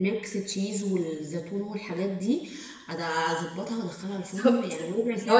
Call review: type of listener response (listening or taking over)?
taking over